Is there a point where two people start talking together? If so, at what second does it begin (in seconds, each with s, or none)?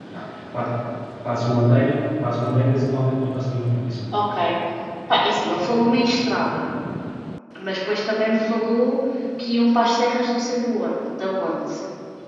none